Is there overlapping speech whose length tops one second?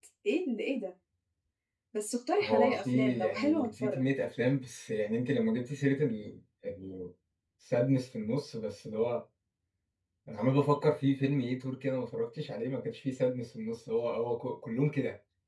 Yes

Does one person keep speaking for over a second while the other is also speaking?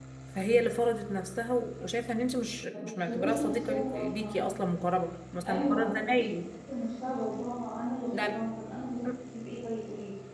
Yes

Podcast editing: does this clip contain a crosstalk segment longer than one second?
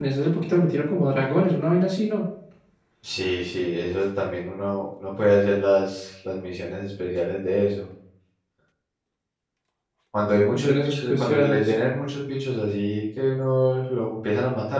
Yes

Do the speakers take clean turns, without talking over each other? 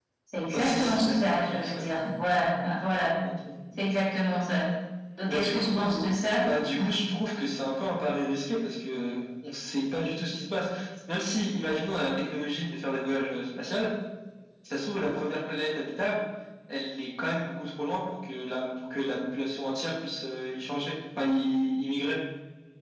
No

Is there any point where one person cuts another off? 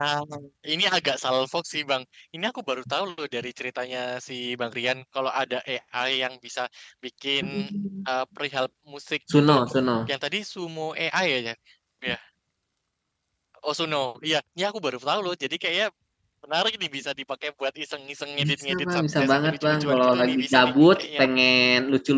Yes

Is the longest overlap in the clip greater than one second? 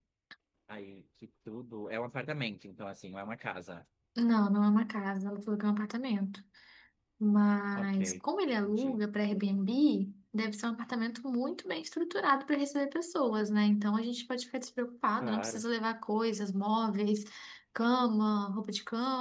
No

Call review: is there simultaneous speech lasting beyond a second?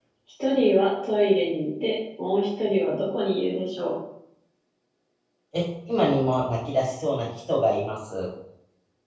No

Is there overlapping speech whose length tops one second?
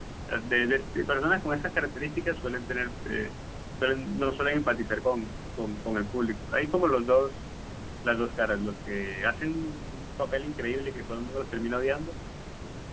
No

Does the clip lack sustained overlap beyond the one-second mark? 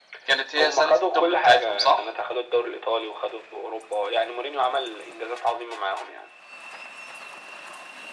No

